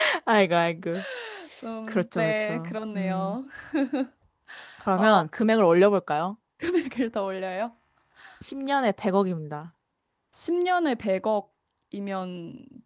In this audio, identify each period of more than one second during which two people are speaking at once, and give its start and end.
1.9-3.4

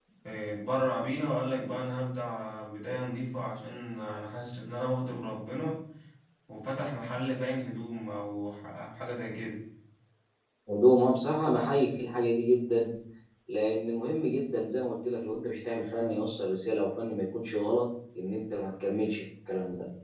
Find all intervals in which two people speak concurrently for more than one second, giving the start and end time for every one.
none

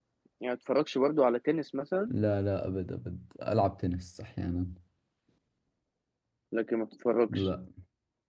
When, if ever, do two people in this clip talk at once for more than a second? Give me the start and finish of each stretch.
none

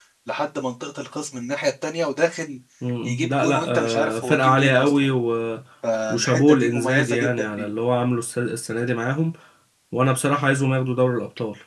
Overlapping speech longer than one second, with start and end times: 3.2-5.1, 6.1-7.7

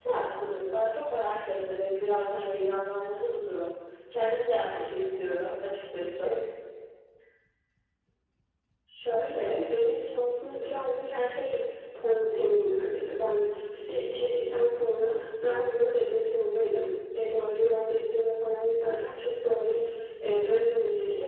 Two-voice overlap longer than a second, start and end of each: none

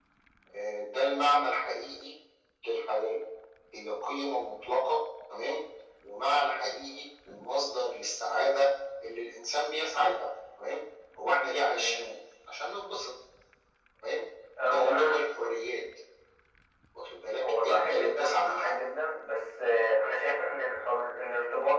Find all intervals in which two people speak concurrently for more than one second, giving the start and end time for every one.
17.4-18.7

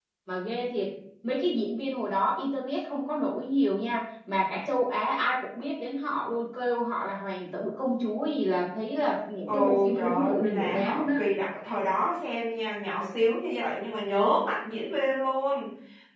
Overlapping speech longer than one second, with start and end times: 9.5-11.3

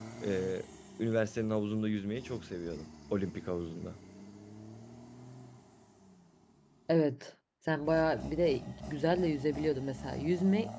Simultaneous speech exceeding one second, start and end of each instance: none

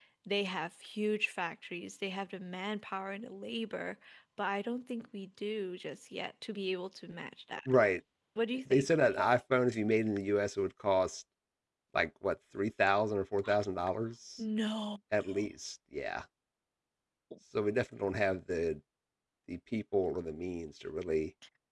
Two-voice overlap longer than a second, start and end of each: none

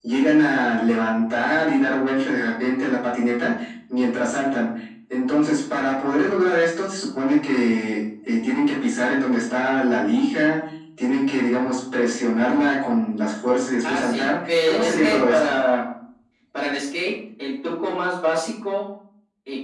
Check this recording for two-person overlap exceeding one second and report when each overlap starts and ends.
13.8-15.5

